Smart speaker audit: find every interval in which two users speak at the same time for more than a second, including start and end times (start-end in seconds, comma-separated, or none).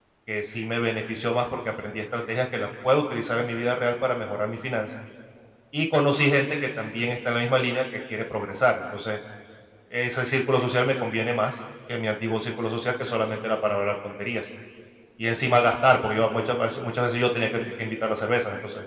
none